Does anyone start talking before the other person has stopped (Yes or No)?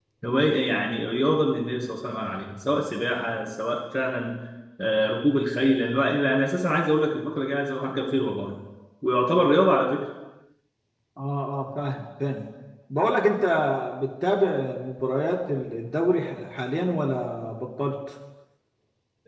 No